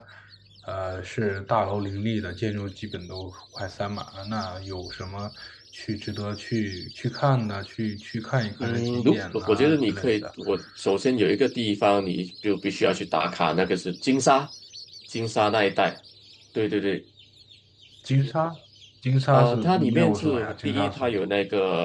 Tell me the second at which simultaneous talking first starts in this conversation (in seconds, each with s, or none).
8.6 s